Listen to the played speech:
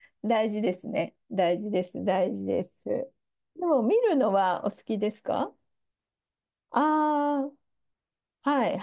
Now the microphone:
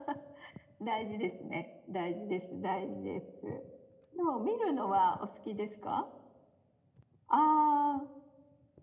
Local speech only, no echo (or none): none